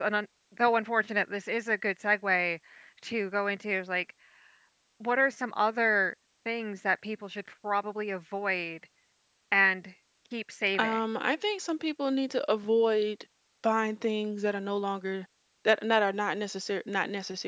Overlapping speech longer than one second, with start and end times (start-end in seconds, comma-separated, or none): none